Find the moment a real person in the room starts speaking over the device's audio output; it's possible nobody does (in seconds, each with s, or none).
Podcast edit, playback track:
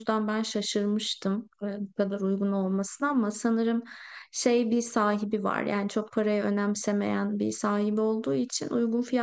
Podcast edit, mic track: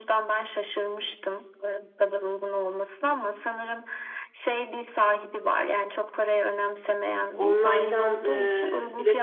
7.3 s